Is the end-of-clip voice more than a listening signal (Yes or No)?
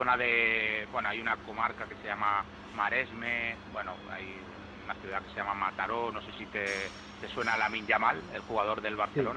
No